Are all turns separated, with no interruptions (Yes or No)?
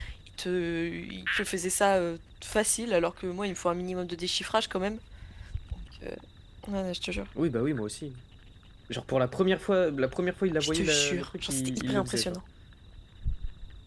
No